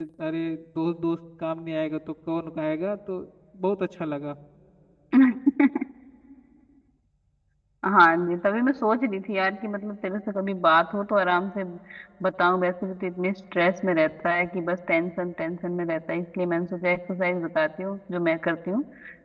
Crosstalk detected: No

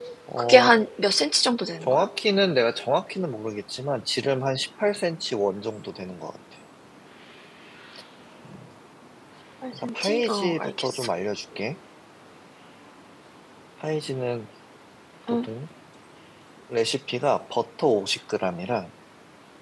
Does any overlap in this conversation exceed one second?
Yes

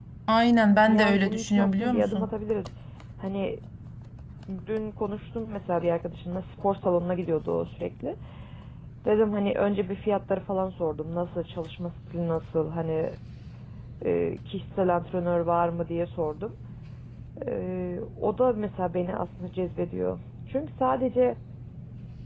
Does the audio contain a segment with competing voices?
Yes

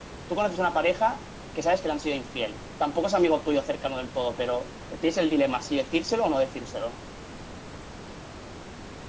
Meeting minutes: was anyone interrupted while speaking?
No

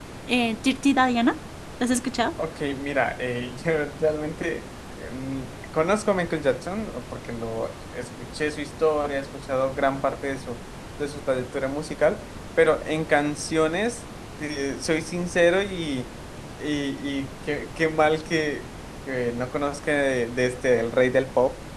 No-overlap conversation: Yes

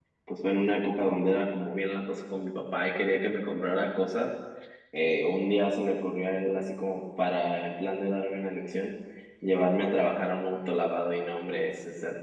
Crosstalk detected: No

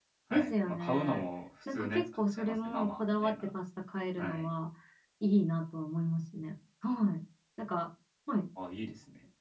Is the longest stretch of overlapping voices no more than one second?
No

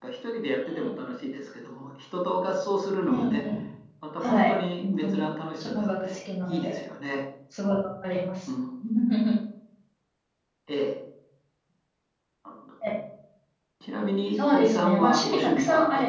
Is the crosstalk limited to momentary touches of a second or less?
No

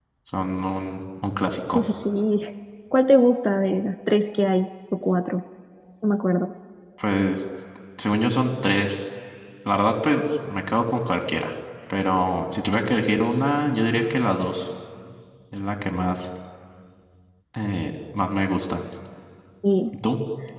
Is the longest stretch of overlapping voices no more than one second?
Yes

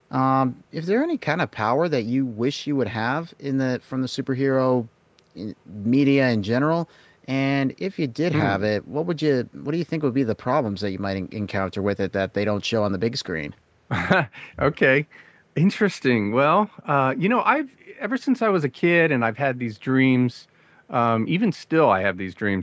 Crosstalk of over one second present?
No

